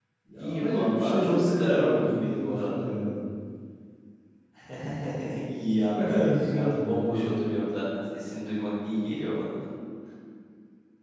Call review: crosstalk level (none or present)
present